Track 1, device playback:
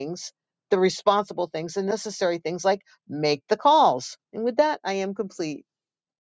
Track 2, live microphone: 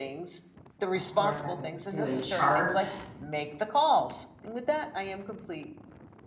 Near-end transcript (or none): of course, I could do a chart